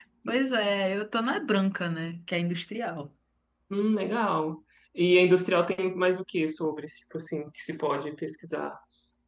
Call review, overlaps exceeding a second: none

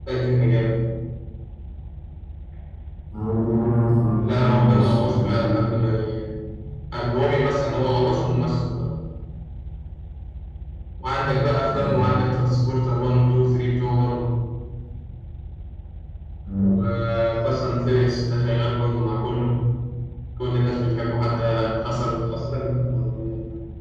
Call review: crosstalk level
present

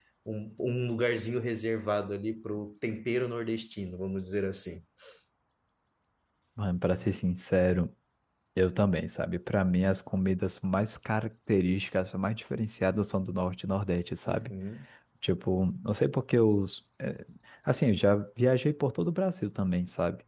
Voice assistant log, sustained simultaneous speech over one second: none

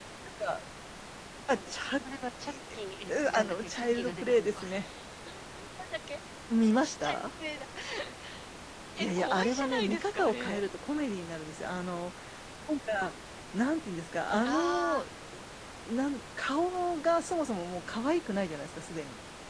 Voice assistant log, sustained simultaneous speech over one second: present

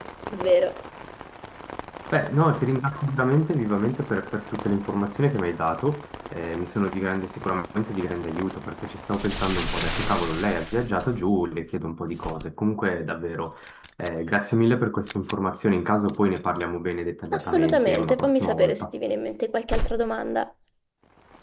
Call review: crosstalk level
present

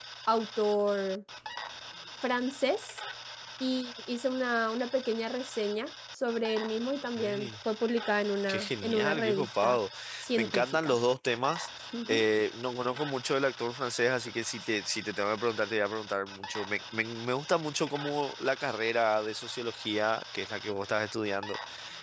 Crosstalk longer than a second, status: present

